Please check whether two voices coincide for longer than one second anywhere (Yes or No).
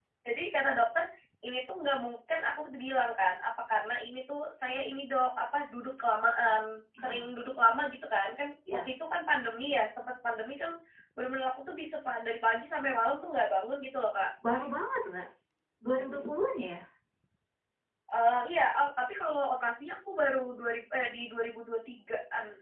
No